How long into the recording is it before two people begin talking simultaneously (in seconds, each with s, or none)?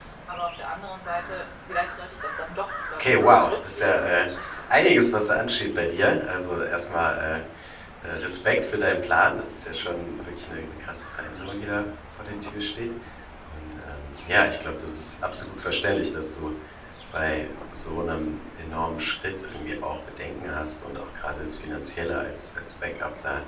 3.0 s